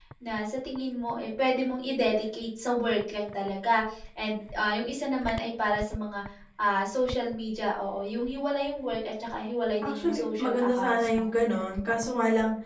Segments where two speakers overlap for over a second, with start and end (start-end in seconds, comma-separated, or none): 9.8-11.3